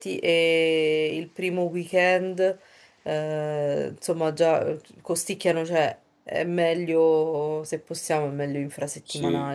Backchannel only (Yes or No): No